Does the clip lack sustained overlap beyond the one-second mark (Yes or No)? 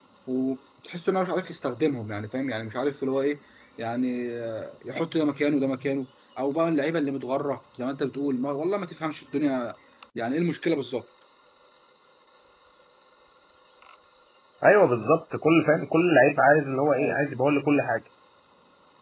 Yes